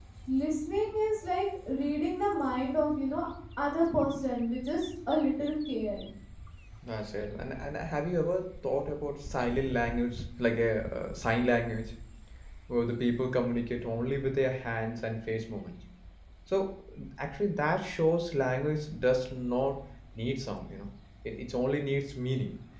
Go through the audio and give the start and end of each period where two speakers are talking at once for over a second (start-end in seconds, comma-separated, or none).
none